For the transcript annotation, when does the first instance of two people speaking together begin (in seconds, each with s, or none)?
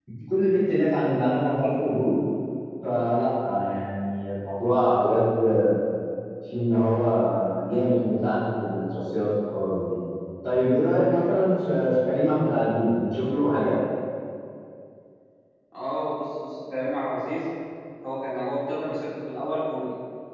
none